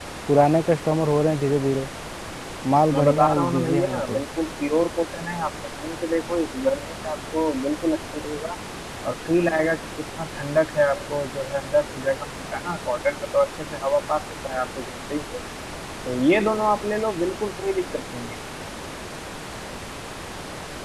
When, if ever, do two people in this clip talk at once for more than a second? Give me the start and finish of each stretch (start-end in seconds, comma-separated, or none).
2.9-4.2